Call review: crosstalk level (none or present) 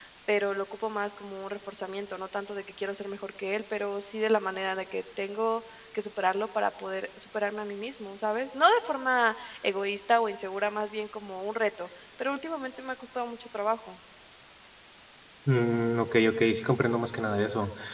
none